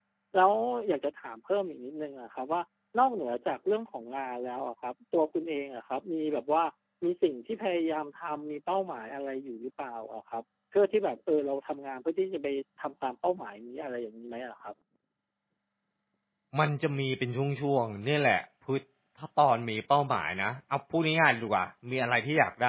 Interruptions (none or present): none